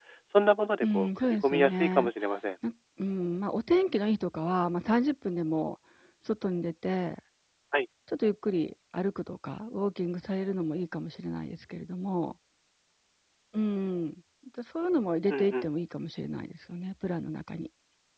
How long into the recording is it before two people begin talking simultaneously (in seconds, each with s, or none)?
0.8 s